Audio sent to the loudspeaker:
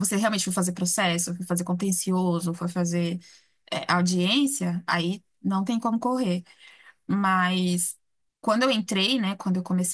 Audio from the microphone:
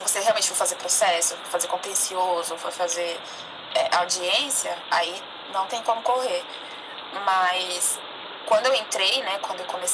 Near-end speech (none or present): none